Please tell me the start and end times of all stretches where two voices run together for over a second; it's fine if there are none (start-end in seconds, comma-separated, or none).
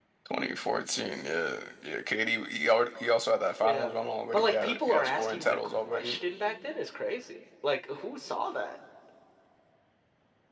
4.3-6.2